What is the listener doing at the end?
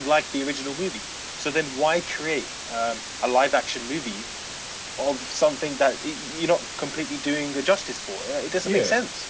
taking over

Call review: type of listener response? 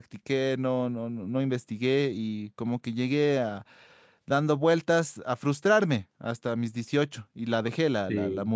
listening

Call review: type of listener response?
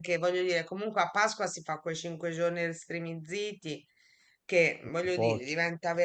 listening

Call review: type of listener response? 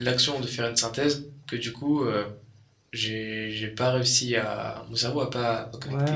taking over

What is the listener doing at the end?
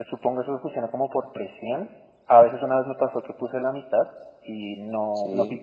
listening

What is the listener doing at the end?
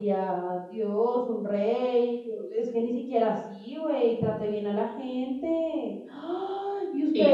listening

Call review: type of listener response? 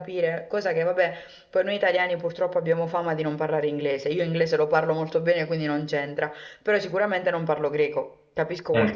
listening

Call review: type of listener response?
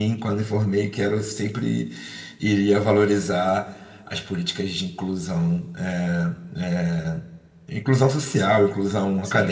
taking over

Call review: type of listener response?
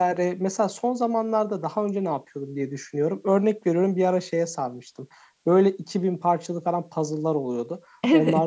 listening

